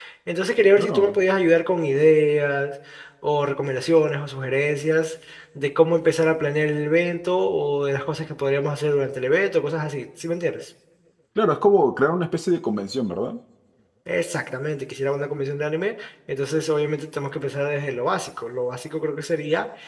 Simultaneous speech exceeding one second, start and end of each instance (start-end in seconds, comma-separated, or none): none